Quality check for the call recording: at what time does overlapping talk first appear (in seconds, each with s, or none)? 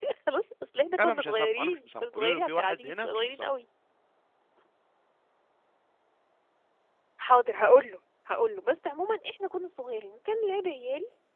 1.0 s